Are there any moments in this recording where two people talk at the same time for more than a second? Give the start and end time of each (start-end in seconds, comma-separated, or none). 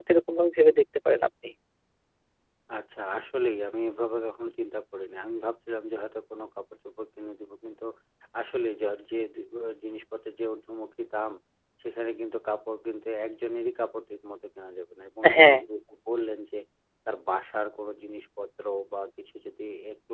none